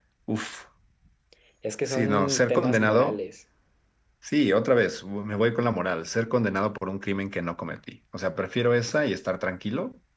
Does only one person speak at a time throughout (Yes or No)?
No